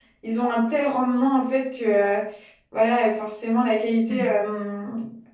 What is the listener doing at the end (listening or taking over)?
listening